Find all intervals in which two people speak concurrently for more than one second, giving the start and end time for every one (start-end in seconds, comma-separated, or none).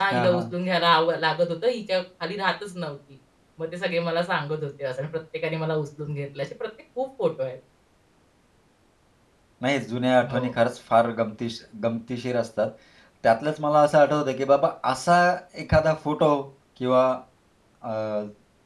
none